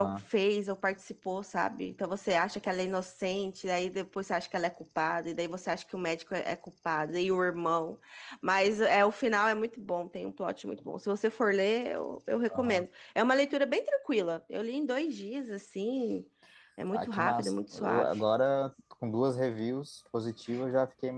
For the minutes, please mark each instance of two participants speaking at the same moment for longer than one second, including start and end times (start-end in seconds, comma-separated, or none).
16.9-18.2